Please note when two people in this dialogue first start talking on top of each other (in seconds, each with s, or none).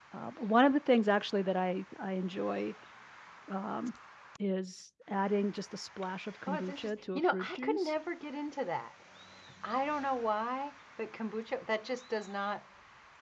6.5 s